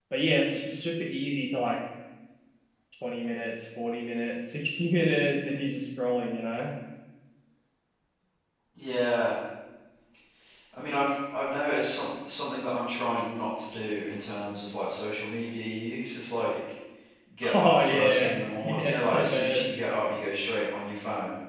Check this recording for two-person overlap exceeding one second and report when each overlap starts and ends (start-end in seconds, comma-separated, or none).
17.5-19.7